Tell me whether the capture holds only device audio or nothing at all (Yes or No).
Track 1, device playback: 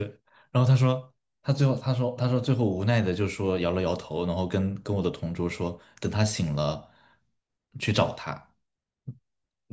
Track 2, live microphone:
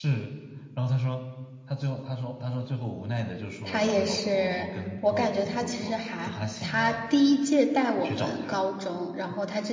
No